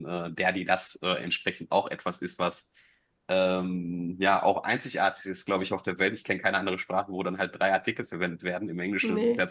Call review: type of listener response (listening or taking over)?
listening